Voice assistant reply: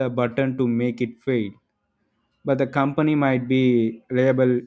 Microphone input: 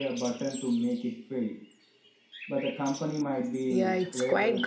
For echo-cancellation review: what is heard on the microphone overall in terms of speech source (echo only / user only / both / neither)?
both